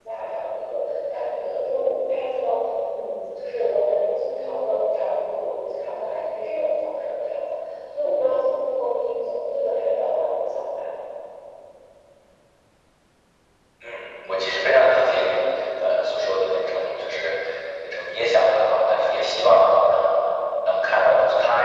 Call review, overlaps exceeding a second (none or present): none